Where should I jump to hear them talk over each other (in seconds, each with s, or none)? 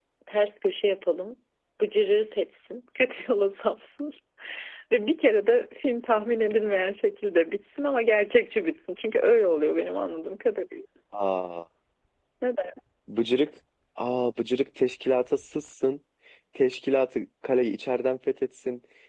none